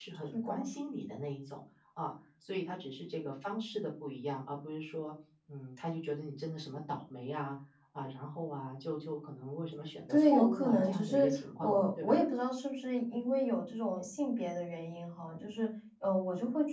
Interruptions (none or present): present